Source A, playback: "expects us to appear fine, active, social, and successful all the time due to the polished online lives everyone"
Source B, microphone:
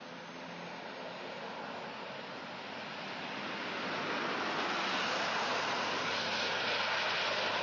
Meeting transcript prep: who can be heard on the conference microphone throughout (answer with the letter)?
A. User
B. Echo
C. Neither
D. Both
C